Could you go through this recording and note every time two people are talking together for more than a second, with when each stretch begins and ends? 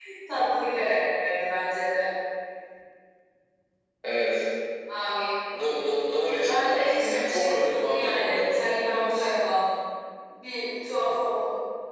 6.4-9.2

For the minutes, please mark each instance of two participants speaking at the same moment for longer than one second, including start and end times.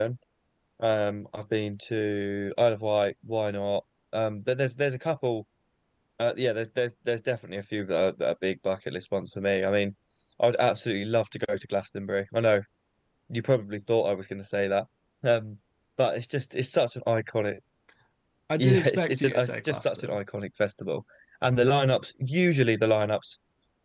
18.6-20.2

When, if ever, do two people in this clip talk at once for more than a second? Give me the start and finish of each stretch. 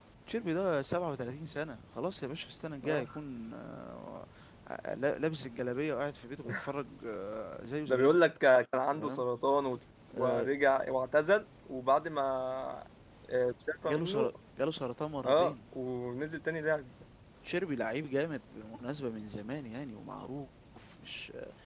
none

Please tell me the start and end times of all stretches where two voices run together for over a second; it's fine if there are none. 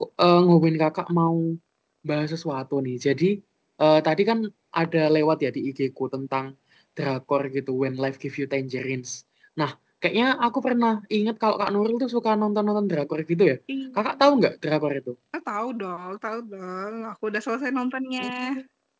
none

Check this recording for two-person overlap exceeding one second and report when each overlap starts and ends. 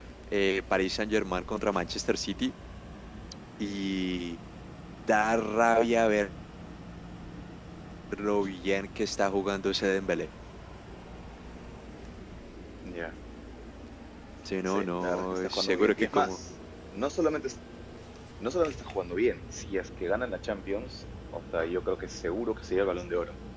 14.7-16.4

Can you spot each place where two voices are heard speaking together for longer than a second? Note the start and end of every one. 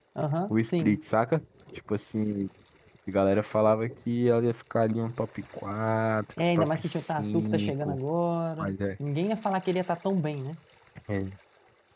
6.6-8.0

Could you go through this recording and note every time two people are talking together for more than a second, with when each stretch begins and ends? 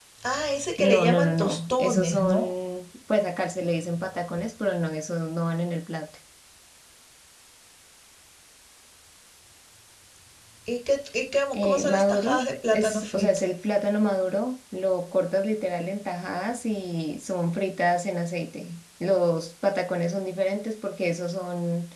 0.8-2.5, 11.5-13.4

